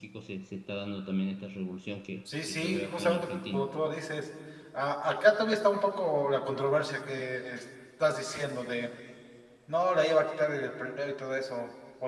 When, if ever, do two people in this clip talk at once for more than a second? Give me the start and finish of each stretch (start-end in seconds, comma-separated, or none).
2.4-3.7